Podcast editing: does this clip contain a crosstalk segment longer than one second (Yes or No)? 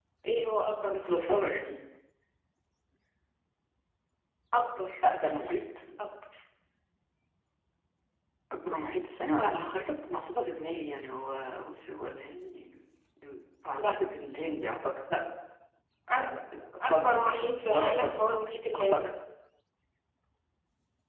Yes